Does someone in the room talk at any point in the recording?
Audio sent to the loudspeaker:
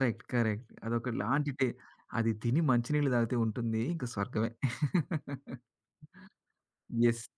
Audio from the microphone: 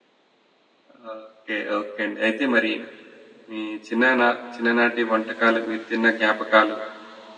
Yes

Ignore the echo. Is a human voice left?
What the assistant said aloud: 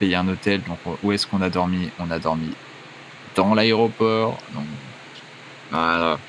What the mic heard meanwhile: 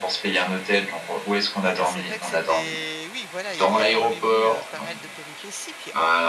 Yes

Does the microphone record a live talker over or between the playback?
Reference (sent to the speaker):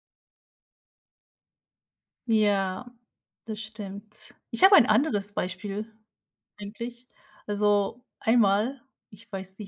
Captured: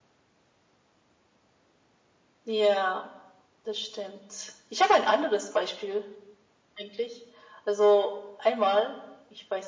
No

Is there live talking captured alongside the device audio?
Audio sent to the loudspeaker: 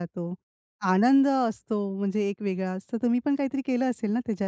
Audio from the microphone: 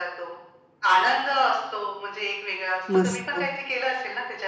Yes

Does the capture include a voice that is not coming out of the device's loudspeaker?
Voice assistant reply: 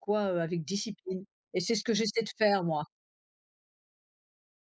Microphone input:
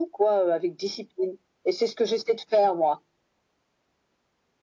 No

